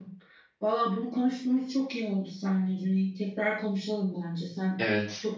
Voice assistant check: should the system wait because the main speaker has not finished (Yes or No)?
No